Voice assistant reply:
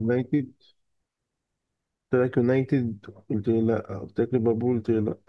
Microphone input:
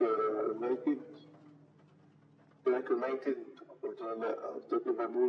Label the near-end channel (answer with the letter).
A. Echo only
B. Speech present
A